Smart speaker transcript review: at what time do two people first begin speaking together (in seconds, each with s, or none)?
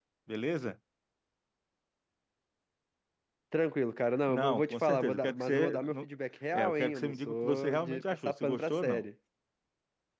4.3 s